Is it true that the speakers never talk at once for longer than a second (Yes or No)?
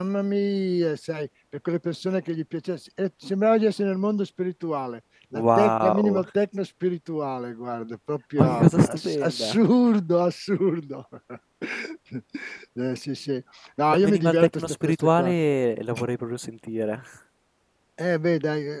No